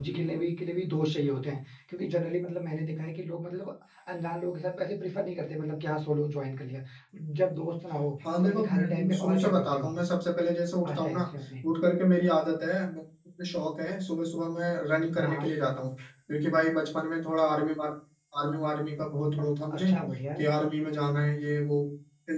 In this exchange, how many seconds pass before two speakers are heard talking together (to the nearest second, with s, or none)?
8 s